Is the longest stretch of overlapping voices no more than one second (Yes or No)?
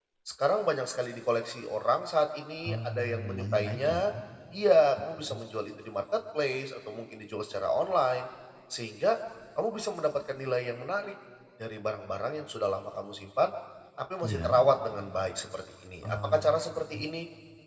No